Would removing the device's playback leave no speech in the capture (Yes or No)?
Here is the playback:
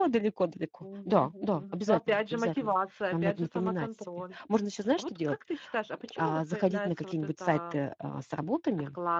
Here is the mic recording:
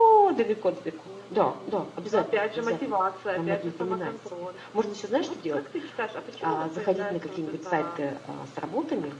Yes